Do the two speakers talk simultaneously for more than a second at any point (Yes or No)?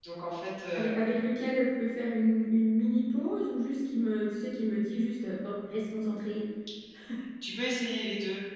No